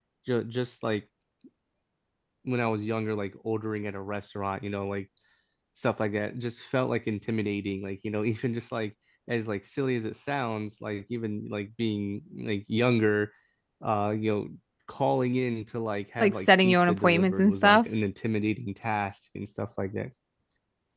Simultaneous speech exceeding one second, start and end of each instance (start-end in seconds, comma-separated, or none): 16.2-17.8